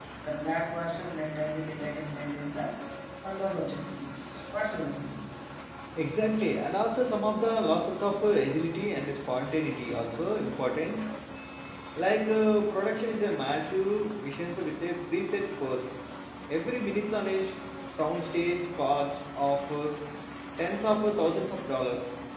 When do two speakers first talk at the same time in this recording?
none

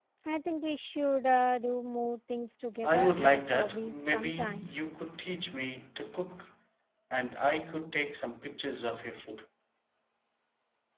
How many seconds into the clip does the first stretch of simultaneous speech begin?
3 s

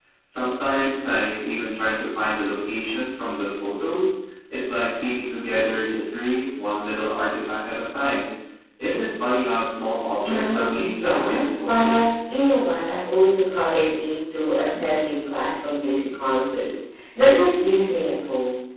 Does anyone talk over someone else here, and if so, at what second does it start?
10 s

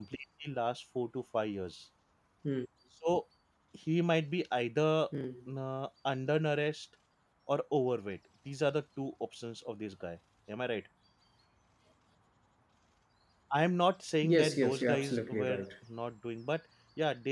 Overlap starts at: 14 s

